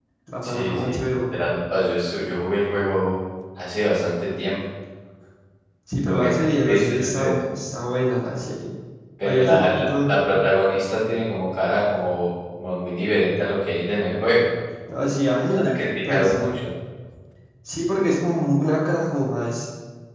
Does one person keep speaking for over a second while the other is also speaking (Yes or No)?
Yes